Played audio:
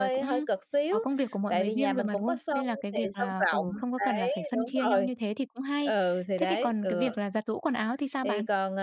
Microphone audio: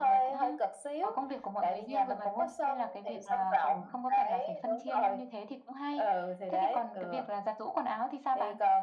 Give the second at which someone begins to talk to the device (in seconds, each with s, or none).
none